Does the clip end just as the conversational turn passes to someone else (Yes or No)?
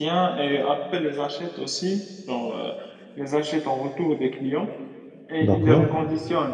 No